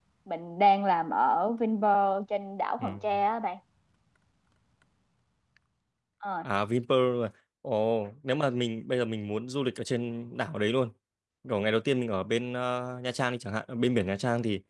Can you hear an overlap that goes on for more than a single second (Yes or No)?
No